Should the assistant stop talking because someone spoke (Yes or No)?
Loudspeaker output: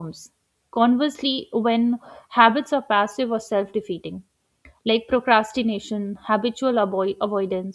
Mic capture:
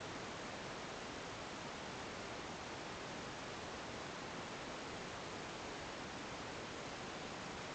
No